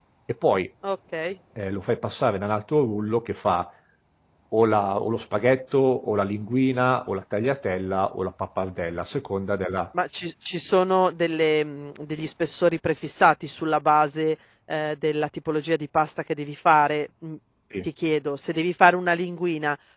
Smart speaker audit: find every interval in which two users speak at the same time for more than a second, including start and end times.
none

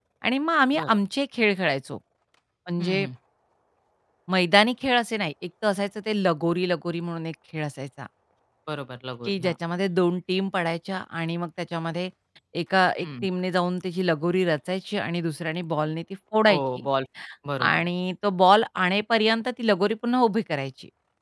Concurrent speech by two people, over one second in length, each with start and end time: none

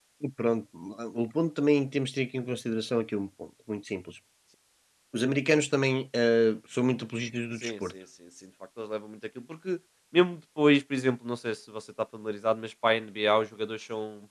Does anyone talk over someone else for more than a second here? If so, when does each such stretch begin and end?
none

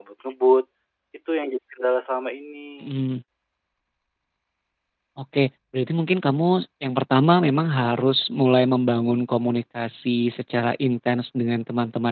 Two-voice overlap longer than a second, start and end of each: none

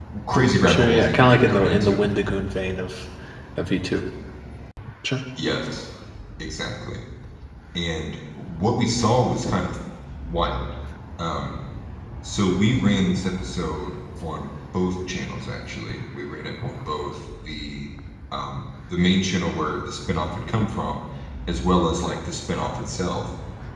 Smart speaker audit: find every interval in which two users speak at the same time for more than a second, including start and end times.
0.7-2.0

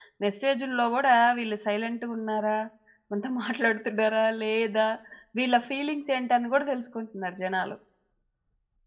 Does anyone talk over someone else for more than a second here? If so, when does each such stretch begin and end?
none

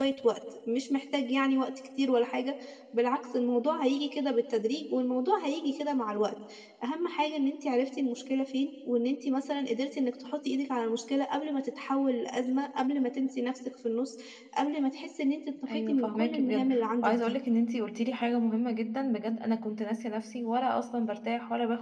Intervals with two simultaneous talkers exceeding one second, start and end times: 15.7-17.4

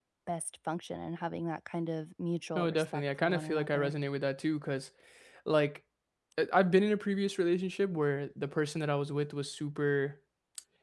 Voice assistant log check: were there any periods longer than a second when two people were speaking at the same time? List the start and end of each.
2.5-3.9

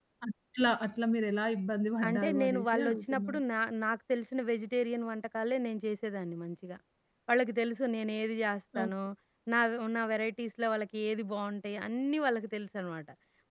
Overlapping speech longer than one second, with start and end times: 2.1-3.4

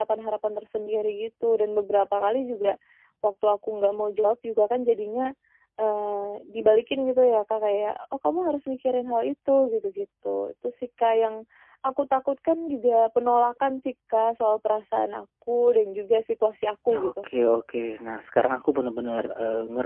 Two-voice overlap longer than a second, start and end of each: none

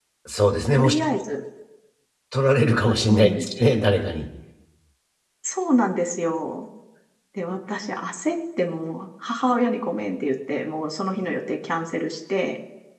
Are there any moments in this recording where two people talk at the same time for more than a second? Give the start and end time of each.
none

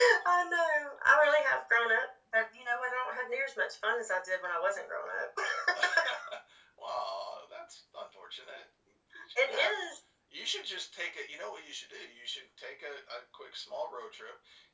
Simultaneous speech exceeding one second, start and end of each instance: none

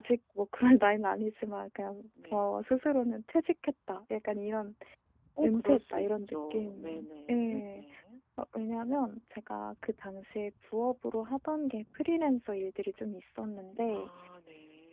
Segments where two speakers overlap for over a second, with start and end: 5.4-7.8

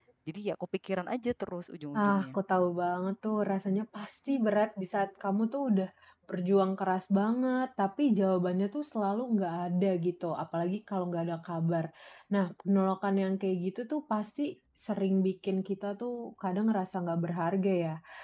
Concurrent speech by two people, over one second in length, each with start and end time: none

